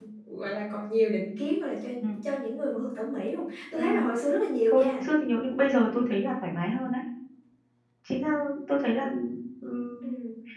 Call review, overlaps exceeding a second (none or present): none